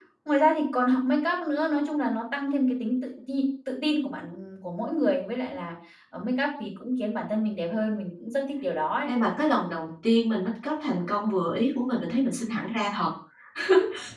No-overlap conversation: Yes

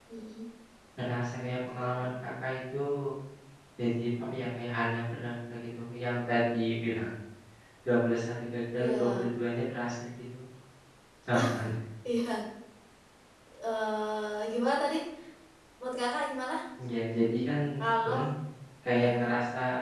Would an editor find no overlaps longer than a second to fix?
Yes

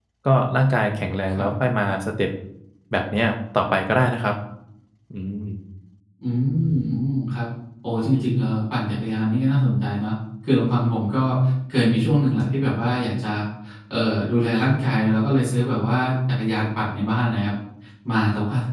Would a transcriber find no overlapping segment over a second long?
Yes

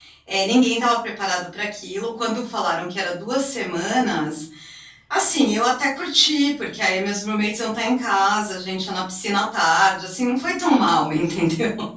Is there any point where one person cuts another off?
No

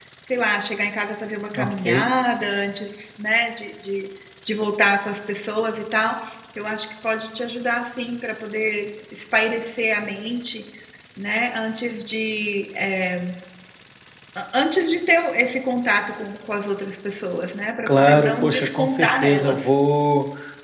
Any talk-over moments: Yes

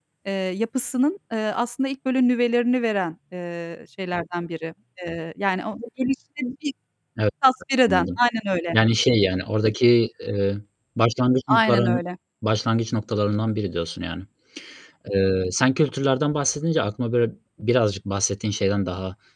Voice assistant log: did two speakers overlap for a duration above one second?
No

